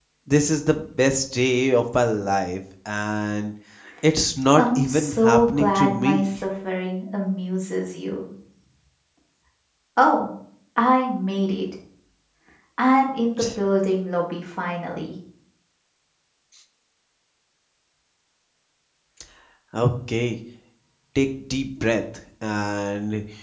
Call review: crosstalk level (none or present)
present